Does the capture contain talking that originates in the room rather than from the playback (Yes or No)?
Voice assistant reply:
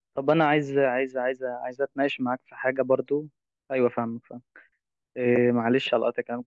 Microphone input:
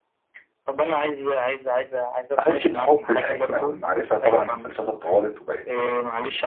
Yes